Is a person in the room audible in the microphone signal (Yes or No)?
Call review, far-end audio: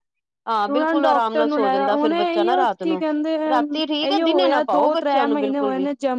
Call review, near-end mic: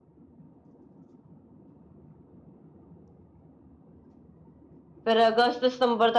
Yes